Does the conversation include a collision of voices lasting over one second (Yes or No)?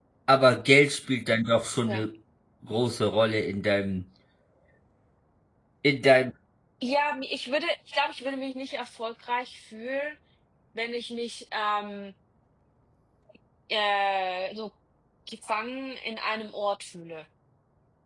No